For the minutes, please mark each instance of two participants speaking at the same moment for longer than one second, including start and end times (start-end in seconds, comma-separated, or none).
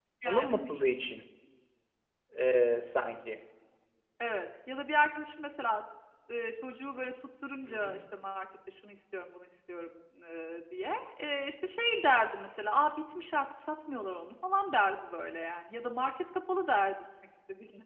none